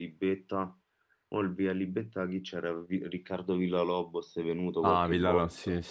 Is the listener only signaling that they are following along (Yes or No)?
No